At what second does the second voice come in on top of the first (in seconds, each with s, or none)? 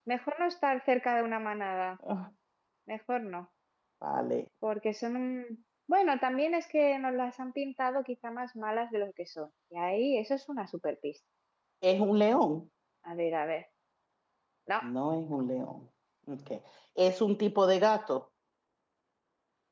none